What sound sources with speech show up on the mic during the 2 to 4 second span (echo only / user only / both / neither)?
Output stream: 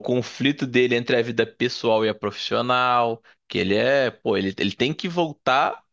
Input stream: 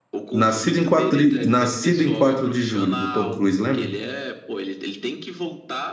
both